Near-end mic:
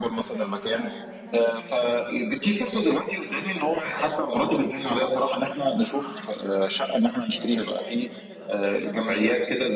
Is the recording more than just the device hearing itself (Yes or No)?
Yes